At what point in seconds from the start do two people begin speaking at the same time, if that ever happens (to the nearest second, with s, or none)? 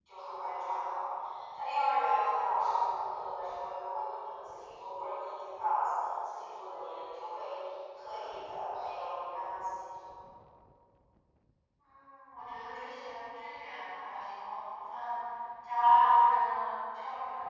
none